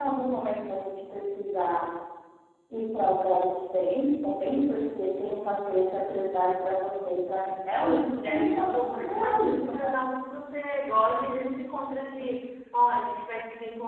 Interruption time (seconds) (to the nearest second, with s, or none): 8 s